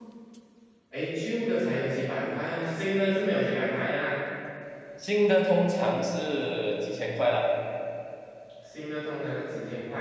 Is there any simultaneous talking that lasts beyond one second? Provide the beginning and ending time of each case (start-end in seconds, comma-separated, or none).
none